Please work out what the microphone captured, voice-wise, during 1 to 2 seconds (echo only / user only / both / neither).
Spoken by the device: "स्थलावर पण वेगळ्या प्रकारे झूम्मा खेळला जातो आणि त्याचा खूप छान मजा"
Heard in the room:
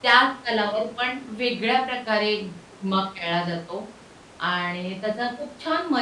echo only